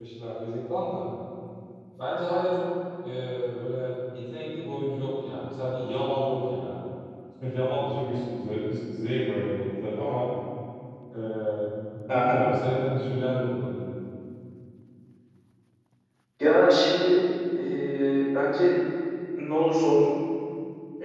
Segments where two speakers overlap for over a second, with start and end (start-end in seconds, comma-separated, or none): none